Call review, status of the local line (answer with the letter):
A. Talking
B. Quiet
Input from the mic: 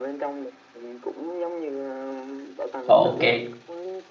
A